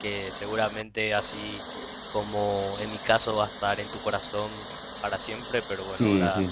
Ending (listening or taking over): taking over